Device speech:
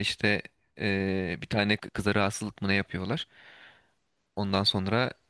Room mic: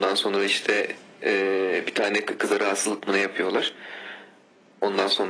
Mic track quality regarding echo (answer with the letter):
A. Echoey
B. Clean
A